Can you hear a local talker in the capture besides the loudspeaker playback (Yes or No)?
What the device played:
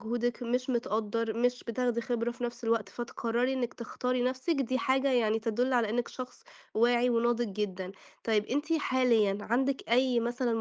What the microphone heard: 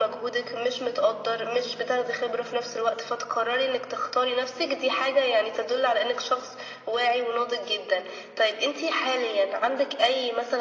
No